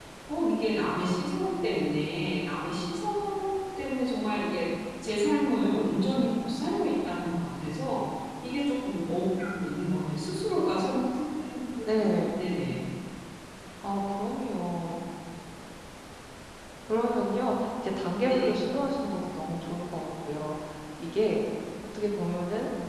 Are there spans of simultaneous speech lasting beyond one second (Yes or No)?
No